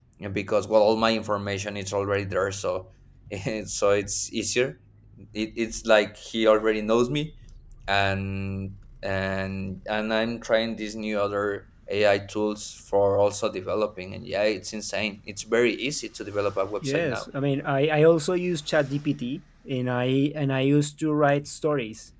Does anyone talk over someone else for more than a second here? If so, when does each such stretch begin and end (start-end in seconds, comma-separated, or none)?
none